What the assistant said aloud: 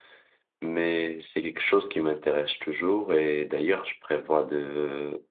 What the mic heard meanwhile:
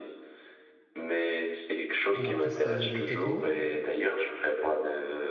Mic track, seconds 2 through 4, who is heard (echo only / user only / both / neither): both